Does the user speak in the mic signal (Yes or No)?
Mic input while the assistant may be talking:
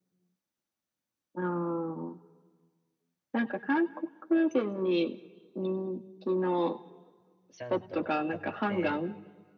Yes